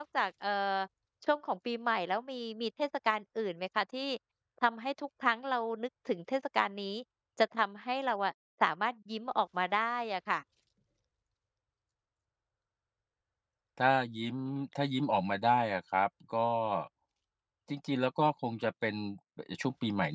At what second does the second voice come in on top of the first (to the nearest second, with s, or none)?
none